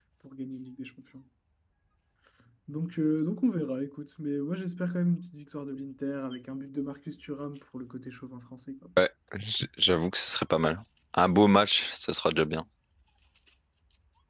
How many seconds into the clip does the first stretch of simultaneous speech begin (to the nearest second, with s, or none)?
none